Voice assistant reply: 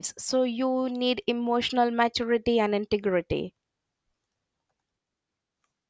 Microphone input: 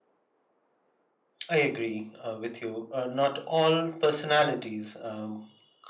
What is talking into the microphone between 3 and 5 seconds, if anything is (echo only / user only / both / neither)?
user only